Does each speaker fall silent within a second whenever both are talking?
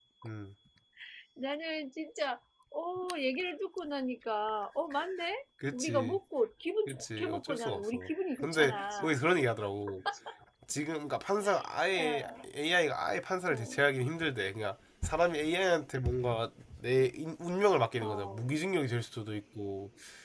No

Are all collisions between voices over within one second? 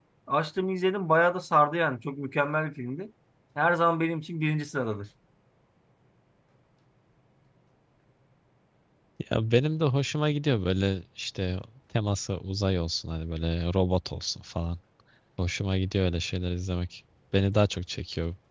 Yes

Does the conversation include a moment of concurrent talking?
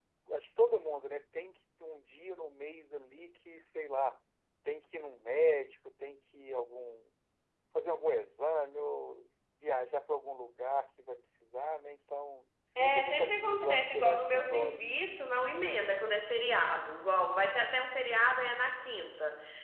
Yes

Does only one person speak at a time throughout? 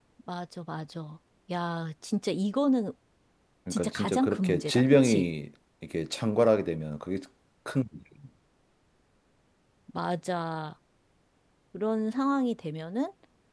No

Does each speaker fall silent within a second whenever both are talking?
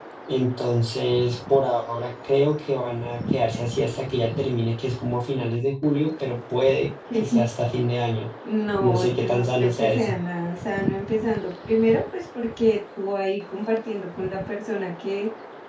No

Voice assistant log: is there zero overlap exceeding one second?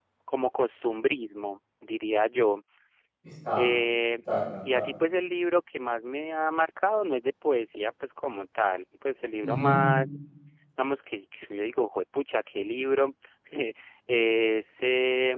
Yes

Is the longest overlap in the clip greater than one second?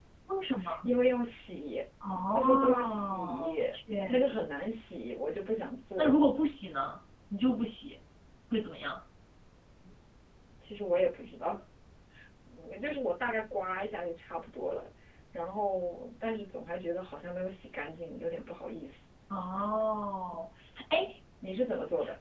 Yes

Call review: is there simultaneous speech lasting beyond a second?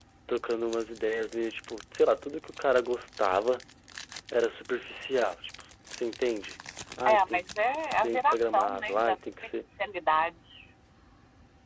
Yes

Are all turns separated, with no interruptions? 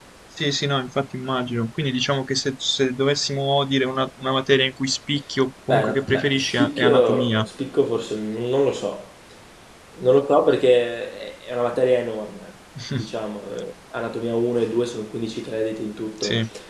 No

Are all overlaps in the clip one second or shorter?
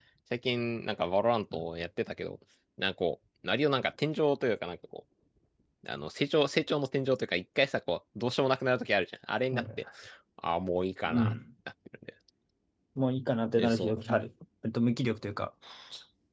Yes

